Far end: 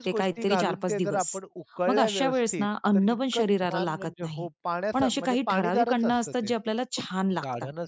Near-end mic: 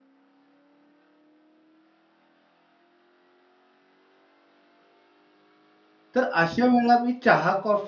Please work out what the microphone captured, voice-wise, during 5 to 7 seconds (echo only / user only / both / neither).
user only